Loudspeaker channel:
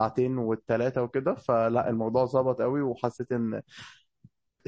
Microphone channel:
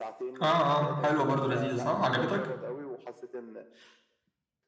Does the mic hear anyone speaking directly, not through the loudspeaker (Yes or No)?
Yes